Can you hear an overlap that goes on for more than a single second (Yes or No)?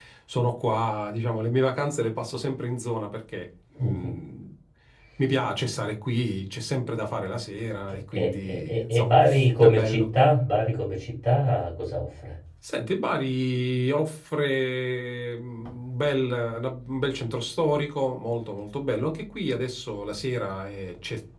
Yes